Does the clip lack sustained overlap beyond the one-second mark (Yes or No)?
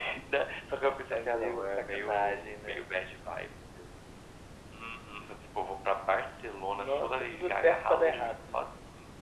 No